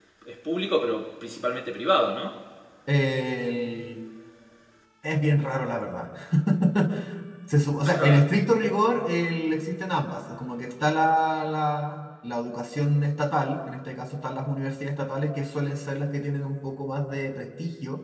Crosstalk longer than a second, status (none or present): none